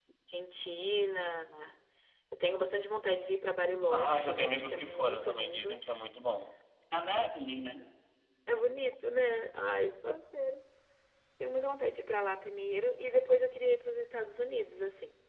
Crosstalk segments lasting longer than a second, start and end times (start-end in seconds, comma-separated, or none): 3.9-5.8